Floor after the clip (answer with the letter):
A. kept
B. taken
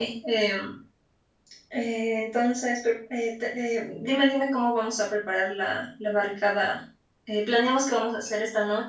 A